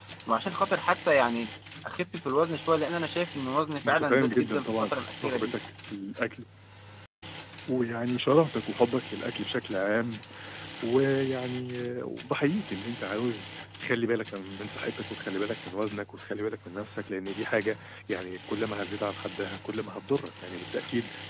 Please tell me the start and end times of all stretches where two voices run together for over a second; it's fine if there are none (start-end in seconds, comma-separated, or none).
3.9-5.5